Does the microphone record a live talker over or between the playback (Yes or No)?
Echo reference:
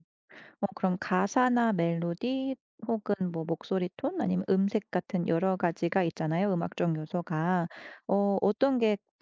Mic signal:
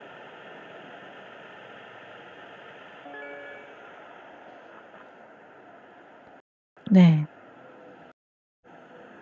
Yes